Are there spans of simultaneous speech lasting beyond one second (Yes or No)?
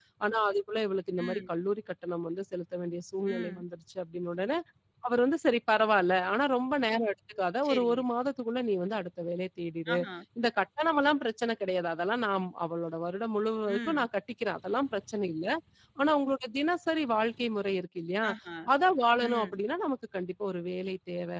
No